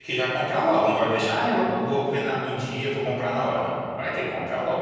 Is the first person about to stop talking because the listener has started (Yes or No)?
Yes